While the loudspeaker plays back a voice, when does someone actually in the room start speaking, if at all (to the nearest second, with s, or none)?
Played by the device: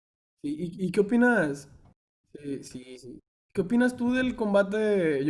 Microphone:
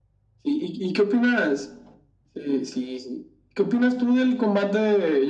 none